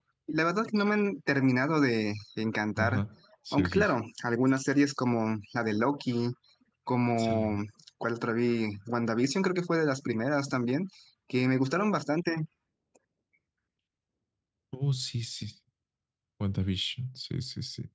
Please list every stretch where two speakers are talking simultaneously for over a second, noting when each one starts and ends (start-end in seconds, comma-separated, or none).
none